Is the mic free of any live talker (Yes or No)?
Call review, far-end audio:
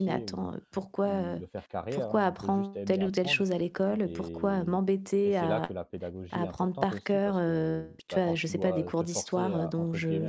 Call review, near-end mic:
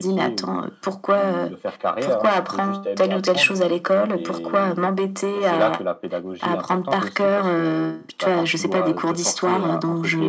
Yes